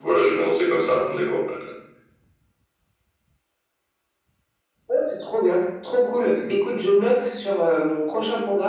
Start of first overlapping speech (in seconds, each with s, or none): none